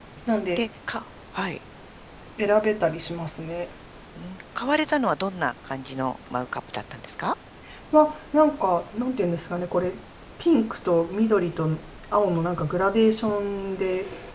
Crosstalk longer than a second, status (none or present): none